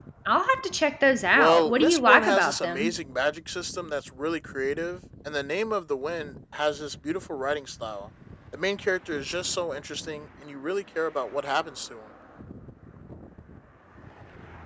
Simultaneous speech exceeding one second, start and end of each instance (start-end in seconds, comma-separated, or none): 1.3-2.9